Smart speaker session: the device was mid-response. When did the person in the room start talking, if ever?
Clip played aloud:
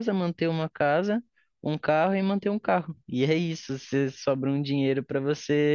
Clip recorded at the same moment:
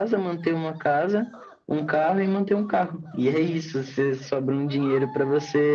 none

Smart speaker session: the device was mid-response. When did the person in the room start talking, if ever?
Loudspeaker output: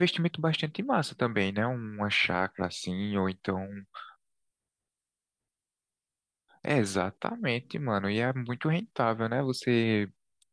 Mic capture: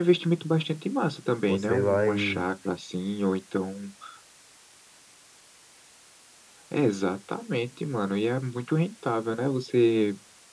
1.5 s

